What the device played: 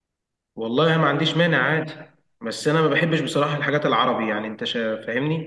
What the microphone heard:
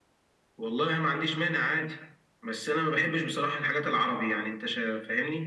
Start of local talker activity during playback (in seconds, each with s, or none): none